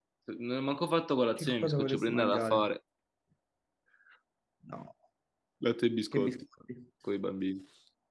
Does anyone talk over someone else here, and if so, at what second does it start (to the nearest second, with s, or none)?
1 s